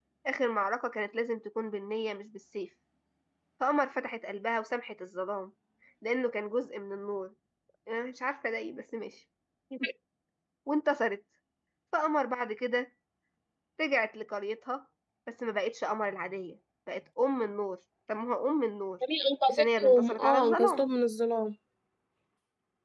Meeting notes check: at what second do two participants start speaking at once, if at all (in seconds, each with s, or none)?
19.5 s